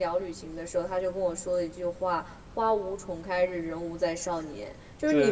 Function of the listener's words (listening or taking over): listening